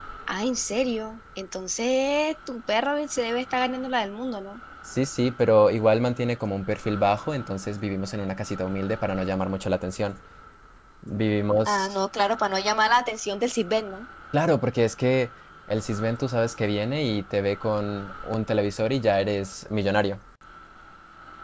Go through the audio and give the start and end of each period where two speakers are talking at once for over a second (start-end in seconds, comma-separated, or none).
none